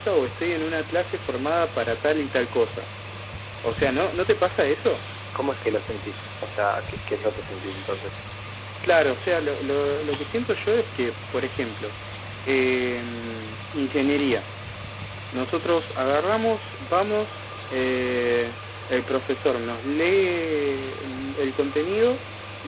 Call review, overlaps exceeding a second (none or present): none